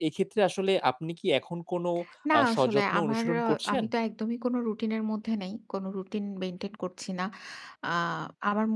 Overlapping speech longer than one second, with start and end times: 2.4-3.8

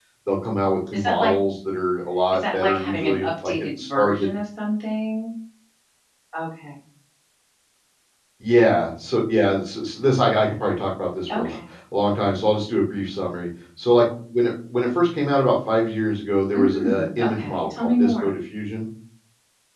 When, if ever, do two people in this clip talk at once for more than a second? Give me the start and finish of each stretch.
2.3-4.3, 16.5-18.3

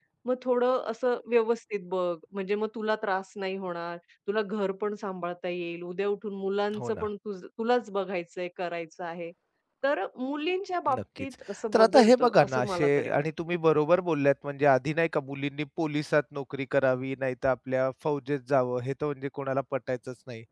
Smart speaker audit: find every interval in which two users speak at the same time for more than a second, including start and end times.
11.7-13.2

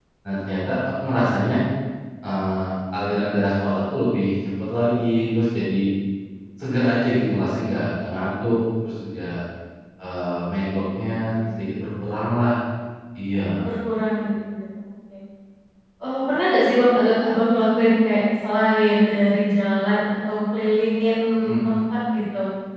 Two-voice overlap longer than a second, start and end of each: none

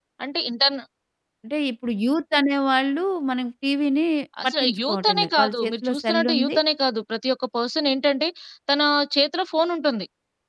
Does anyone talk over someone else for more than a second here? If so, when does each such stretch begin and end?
4.5-6.5

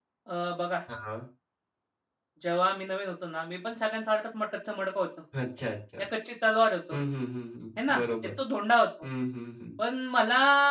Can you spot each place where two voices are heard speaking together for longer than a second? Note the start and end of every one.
none

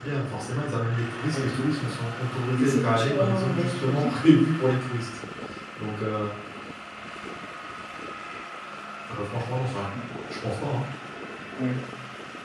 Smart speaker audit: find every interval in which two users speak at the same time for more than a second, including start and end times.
2.6-4.1

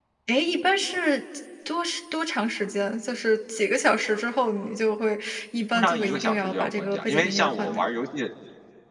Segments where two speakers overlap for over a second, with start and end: 5.7-7.8

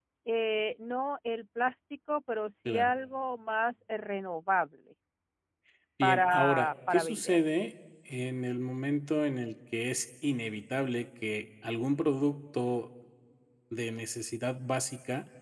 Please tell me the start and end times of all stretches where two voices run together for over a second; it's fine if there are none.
6.0-7.4

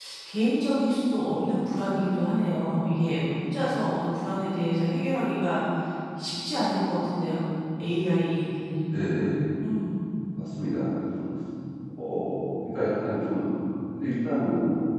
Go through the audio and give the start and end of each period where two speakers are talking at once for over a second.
none

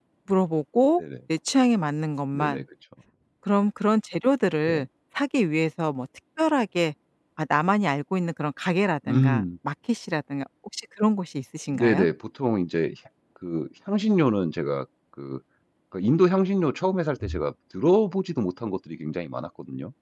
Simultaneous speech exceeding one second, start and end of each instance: none

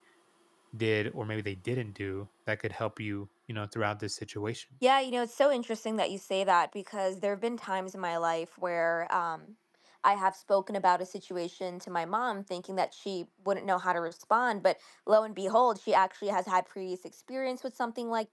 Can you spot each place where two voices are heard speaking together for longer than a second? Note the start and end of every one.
none

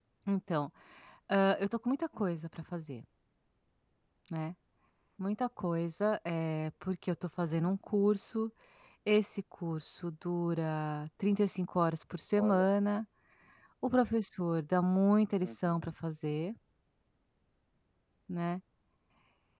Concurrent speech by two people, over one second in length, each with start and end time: none

